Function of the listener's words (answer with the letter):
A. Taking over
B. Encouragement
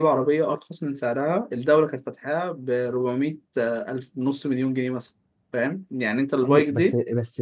A